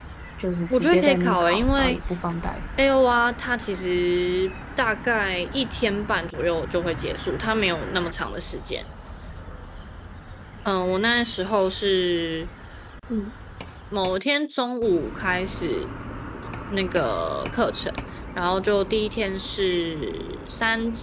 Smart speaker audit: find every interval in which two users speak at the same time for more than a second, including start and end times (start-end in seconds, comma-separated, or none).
0.7-2.0